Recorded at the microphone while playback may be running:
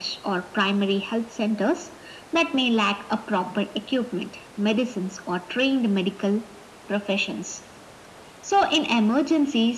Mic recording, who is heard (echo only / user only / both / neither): echo only